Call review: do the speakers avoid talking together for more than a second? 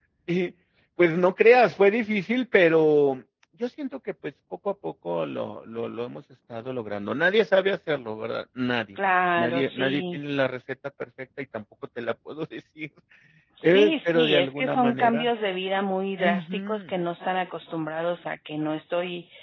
No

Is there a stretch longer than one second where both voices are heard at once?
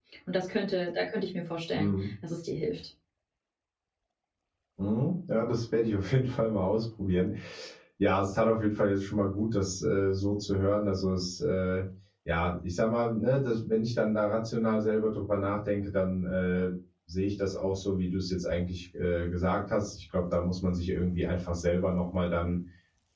No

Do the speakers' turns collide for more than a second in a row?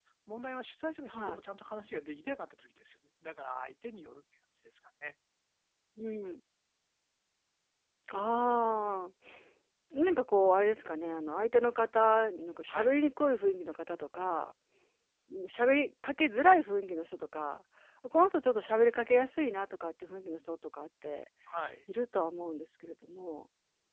No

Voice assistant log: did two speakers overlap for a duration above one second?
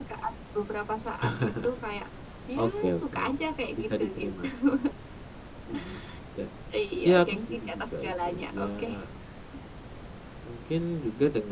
Yes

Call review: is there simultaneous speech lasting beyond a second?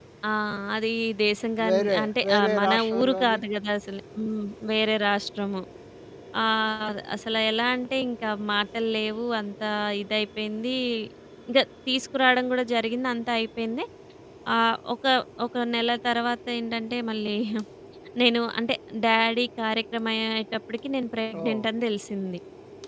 Yes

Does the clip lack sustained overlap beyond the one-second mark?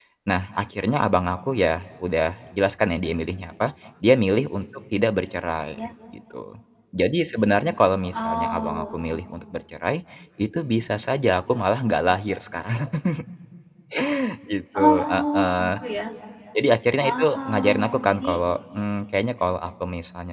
No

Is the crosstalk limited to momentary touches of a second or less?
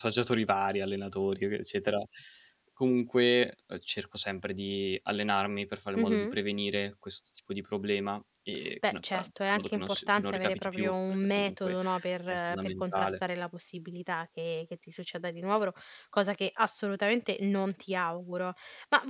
No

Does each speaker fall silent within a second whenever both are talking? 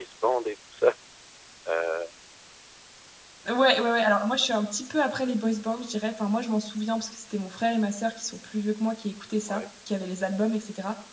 Yes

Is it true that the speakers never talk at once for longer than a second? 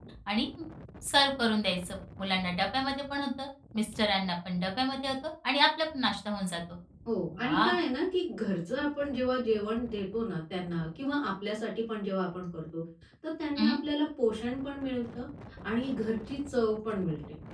Yes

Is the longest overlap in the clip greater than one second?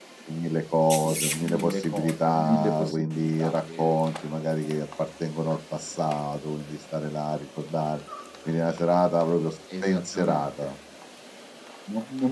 Yes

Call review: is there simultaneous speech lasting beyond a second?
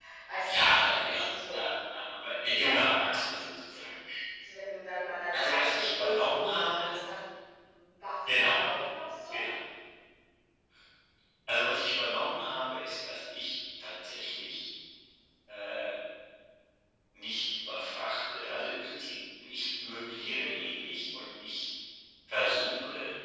Yes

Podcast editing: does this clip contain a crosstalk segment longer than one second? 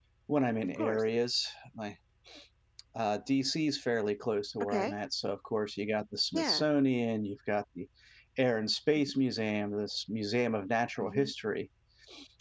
No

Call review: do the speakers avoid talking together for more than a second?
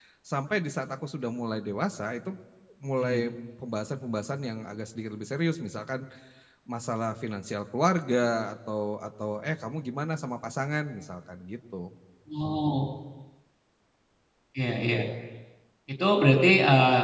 Yes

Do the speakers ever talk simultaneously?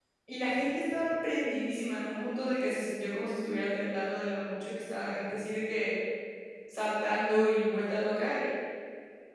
No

